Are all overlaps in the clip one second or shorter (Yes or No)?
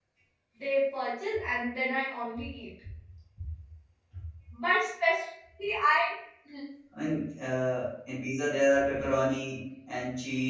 Yes